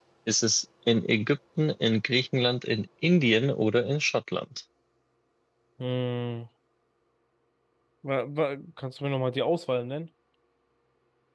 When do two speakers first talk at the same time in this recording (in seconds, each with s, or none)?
none